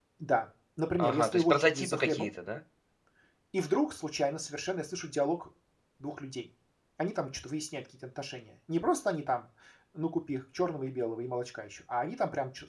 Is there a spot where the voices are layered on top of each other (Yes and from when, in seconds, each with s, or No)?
Yes, from 1.0 s